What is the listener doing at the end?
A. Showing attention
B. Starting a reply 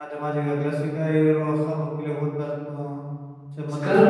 B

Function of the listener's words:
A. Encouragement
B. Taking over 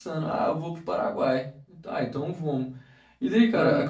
A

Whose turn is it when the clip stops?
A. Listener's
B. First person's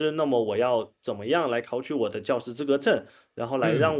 B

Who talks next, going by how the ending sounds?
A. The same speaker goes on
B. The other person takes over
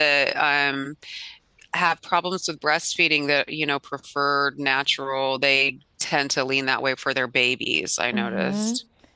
B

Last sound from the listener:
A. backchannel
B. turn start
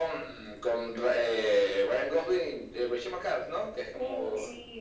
B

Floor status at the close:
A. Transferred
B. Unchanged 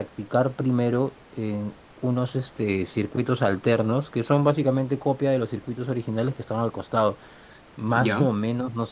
B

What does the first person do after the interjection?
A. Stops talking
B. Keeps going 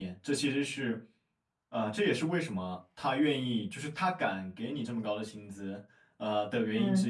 B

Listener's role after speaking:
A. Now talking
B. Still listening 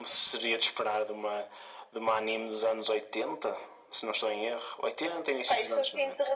A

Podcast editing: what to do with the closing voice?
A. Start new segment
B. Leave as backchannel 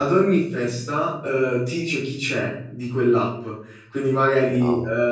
B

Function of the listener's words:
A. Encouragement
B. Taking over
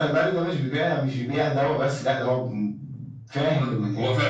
B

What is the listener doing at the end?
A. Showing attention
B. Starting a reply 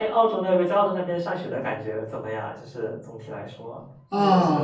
B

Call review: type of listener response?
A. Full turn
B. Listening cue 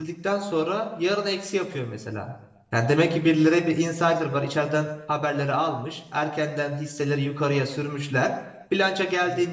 B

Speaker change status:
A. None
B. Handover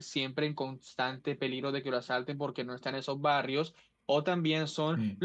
A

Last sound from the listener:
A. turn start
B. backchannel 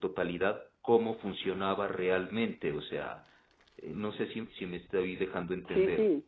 A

